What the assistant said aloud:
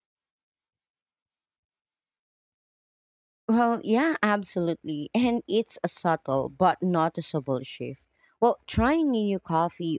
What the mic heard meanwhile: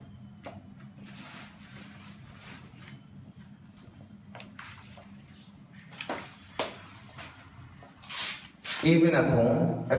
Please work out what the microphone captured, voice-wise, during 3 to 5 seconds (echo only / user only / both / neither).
neither